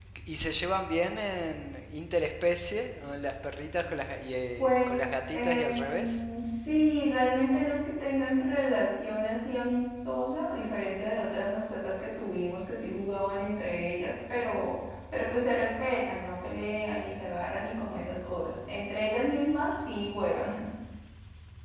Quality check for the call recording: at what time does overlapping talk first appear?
4.6 s

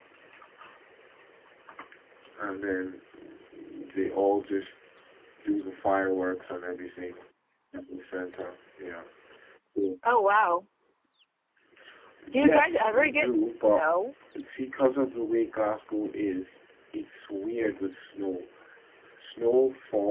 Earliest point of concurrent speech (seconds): 12.3 s

